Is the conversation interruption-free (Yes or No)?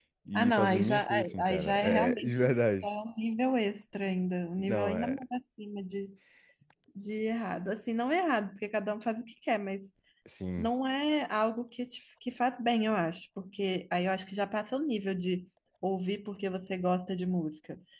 No